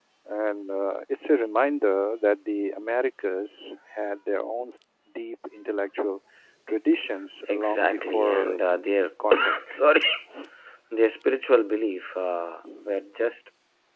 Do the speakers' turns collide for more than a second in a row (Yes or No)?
Yes